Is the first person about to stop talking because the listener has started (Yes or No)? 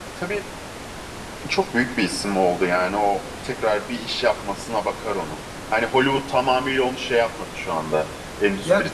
No